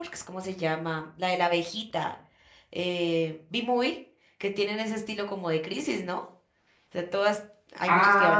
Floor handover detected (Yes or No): Yes